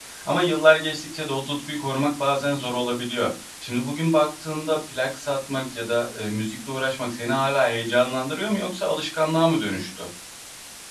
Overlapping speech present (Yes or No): No